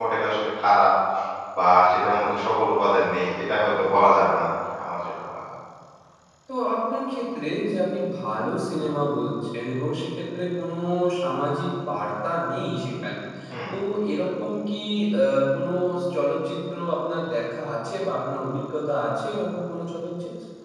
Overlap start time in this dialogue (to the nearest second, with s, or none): none